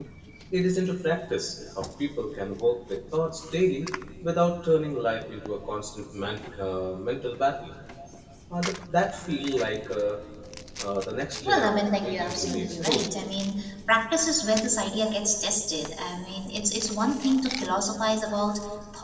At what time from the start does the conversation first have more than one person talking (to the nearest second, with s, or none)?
11 s